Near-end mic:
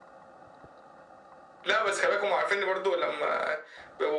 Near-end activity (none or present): none